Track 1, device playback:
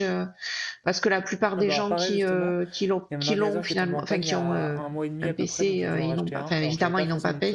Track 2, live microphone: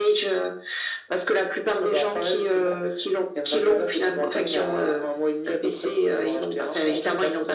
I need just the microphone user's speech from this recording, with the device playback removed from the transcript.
none

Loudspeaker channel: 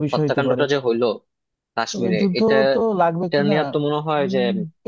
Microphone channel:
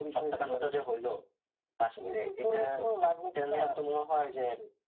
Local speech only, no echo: none

